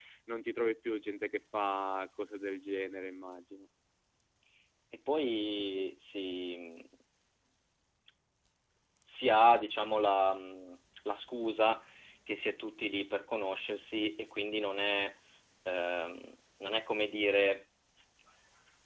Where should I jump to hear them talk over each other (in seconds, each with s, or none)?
none